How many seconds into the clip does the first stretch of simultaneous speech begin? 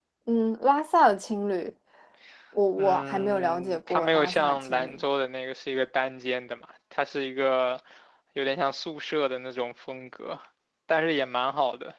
2.8 s

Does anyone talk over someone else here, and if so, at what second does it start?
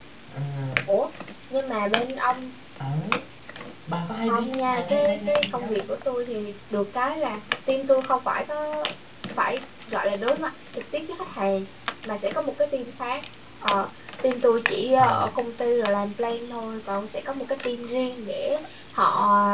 4.3 s

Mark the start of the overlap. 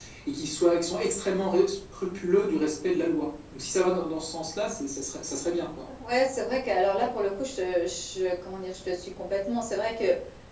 none

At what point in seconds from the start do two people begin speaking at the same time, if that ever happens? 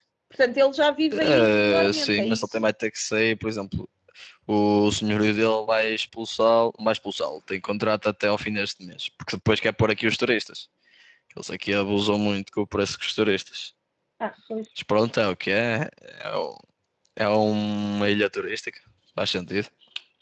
1.1 s

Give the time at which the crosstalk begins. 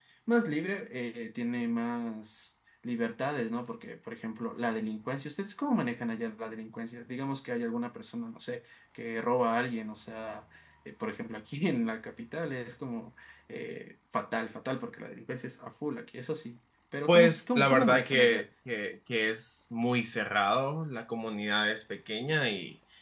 17.1 s

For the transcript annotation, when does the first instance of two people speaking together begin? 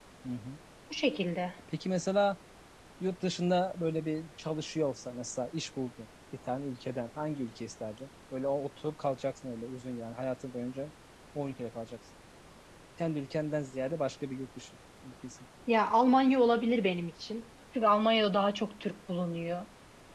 none

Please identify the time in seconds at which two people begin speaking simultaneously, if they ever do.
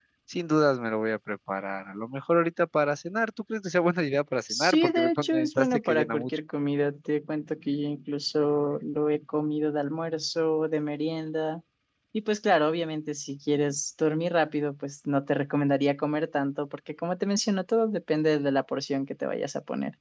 4.5 s

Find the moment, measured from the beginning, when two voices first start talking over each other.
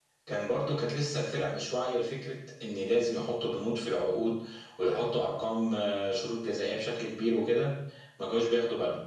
none

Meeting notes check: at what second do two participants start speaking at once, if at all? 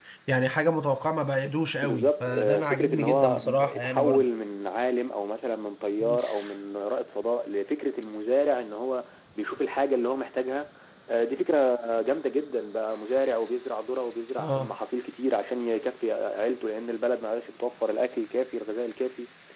1.8 s

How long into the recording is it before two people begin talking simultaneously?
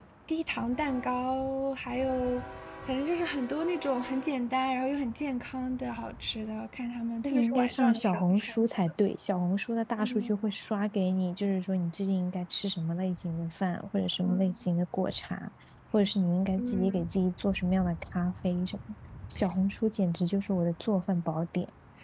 7.2 s

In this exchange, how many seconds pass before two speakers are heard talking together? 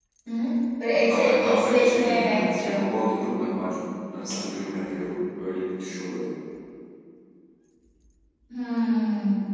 0.9 s

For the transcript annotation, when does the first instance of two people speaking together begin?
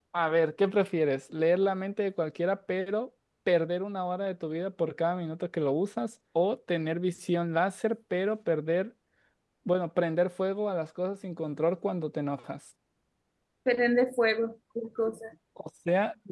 none

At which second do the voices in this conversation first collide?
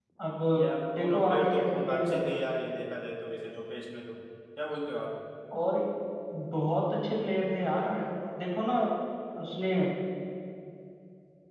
1.0 s

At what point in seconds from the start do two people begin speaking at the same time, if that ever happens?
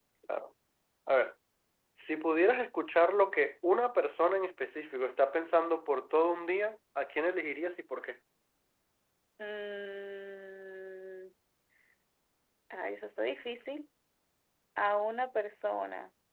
none

